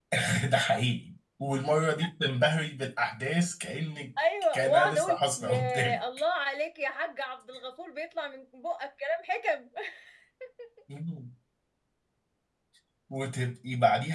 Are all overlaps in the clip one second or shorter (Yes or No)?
No